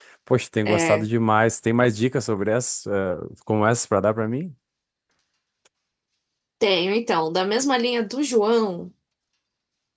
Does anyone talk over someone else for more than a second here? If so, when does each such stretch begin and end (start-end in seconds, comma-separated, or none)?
none